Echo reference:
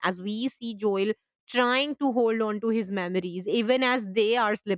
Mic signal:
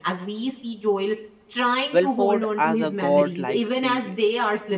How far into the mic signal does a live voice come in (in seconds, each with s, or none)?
1.9 s